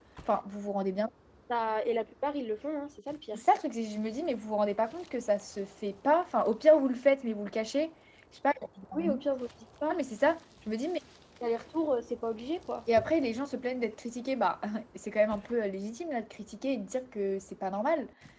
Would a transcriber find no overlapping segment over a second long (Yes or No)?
Yes